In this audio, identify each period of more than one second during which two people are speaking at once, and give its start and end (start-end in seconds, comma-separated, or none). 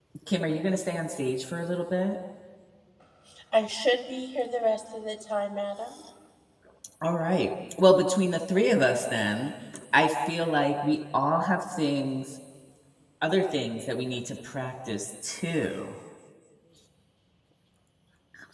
none